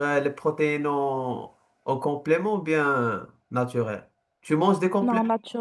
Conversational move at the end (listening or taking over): taking over